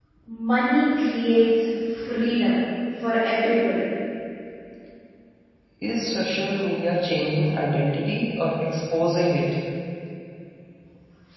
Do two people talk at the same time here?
No

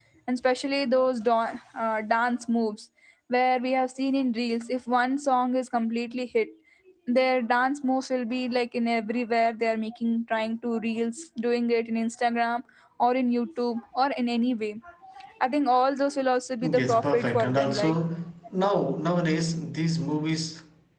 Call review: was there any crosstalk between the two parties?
Yes, from 16.6 s

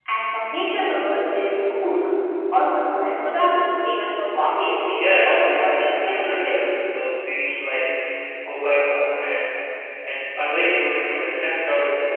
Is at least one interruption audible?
Yes, from 5.0 s

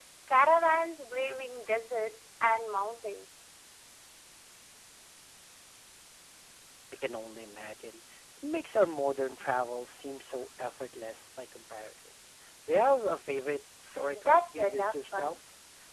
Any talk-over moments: Yes, from 13.9 s

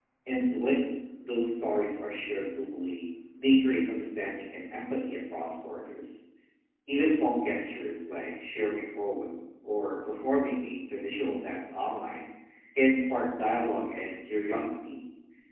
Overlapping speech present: No

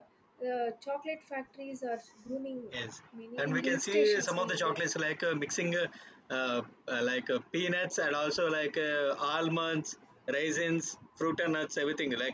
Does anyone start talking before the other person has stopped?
Yes, from 3.4 s

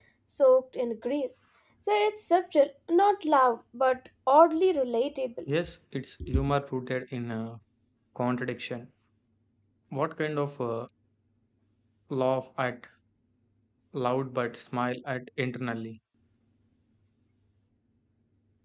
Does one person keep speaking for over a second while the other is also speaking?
No

